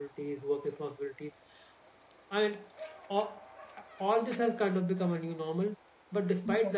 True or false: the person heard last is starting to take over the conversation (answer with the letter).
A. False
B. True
A